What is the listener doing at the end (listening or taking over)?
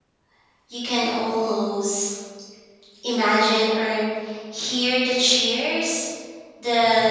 listening